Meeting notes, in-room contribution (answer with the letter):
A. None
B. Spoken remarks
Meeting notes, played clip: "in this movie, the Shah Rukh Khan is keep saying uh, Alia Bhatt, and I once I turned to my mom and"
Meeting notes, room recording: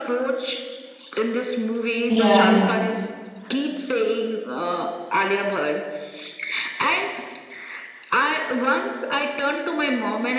B